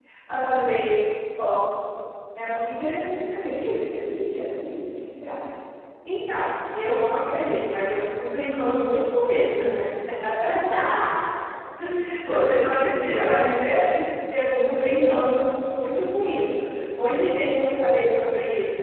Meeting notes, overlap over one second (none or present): none